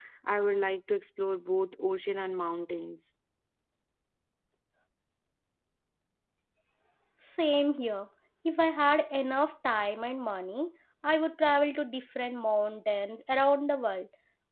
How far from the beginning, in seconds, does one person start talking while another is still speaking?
none

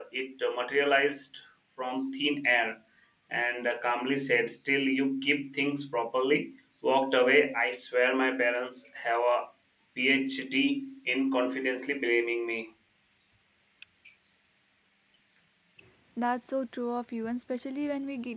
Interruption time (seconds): none

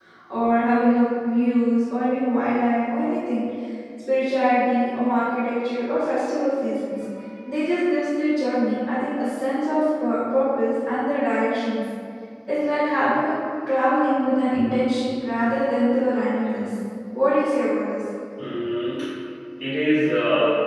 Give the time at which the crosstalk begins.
none

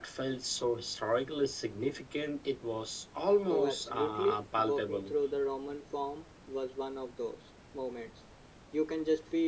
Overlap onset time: 3.5 s

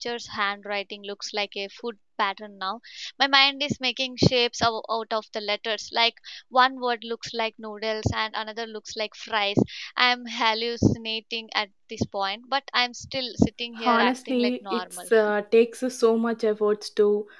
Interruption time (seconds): 13.8 s

